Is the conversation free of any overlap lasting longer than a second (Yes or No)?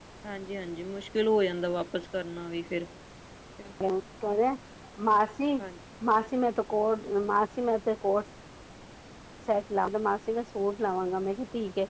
Yes